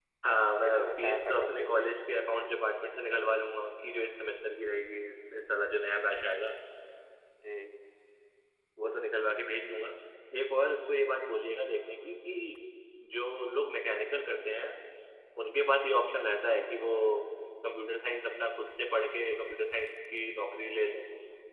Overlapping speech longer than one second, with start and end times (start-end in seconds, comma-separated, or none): 0.7-1.9